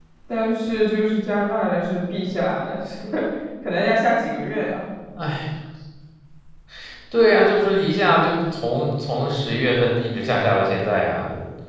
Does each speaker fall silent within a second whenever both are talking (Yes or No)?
Yes